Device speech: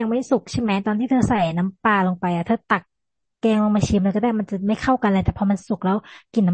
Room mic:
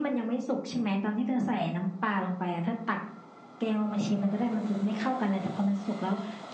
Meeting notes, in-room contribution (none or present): none